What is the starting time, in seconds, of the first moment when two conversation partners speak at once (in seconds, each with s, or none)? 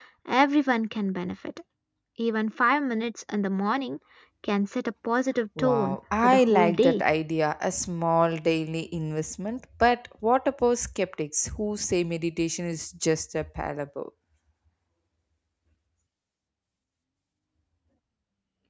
5.6 s